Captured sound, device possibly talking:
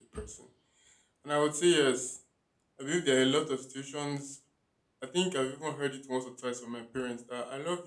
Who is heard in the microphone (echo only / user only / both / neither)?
user only